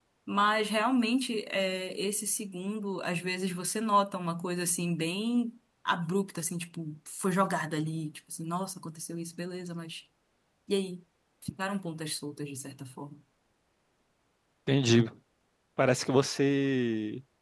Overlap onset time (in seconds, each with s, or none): none